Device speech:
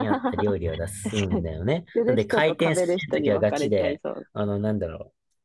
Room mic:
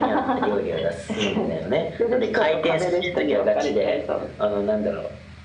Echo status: present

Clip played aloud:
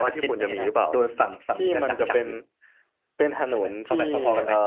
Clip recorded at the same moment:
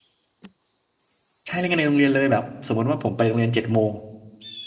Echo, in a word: none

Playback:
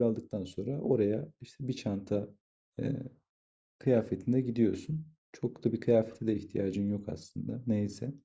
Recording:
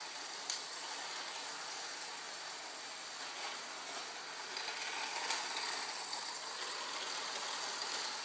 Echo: none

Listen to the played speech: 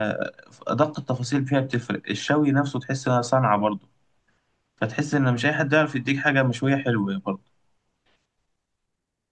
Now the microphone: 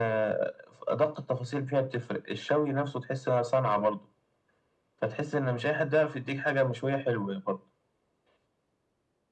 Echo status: present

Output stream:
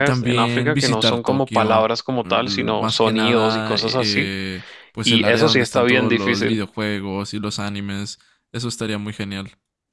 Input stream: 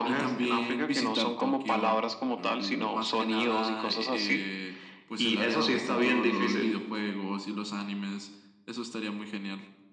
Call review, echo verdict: present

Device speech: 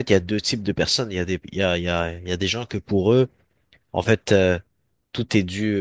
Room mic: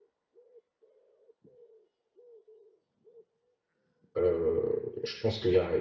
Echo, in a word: none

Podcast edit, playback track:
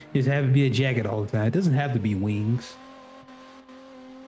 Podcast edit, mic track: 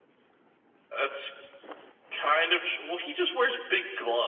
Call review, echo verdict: none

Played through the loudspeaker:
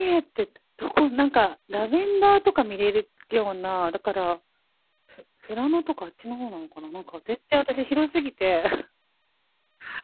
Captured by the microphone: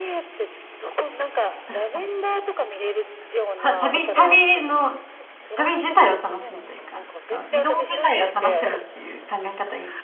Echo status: present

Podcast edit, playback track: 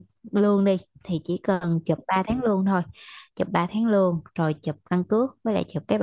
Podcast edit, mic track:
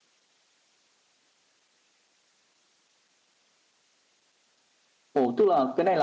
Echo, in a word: none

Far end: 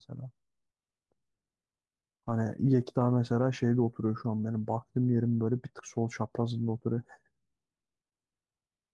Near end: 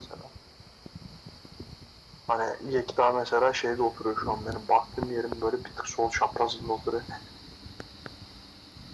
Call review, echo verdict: present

